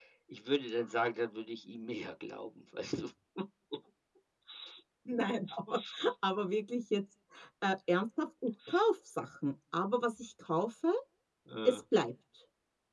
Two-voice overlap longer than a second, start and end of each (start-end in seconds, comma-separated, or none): none